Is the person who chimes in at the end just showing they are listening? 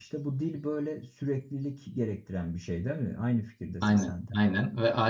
No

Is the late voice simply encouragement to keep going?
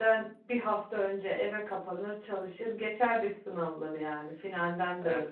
Yes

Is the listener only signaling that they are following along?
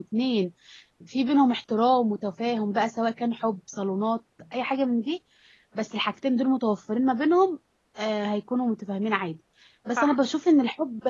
Yes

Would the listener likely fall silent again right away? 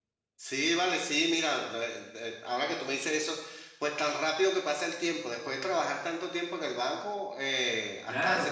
No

